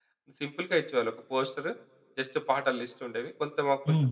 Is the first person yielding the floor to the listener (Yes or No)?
No